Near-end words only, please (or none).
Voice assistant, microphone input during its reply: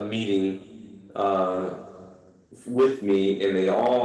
none